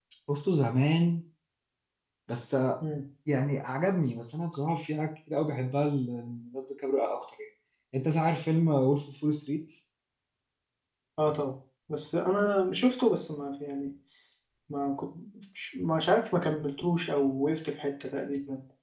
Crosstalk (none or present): none